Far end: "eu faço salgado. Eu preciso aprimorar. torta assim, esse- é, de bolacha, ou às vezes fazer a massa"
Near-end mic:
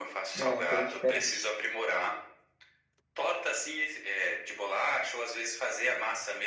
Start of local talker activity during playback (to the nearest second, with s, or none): 0 s